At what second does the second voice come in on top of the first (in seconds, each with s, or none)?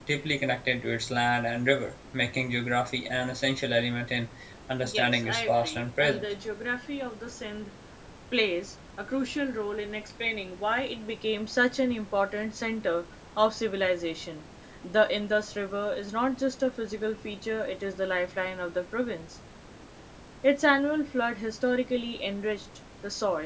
4.8 s